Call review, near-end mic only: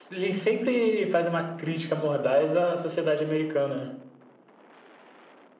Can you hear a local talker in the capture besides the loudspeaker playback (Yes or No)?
No